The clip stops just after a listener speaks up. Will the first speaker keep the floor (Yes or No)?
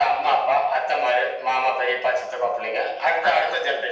Yes